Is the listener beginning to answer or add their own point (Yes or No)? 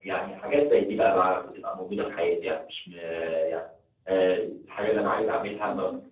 No